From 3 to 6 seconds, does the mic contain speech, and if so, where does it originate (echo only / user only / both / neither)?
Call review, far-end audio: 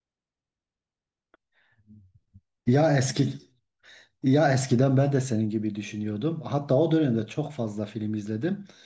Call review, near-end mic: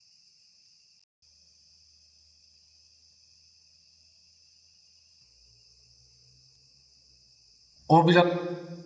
neither